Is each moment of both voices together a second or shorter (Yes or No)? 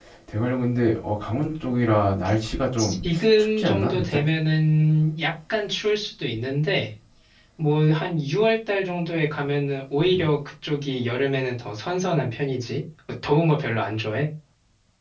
No